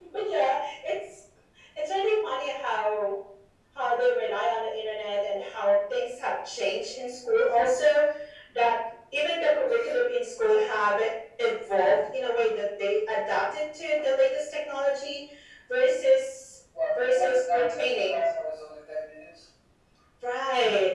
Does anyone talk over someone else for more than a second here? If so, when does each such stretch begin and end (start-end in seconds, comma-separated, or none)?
16.9-18.2